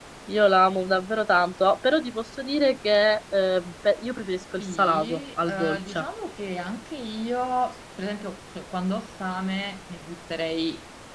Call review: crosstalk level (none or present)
present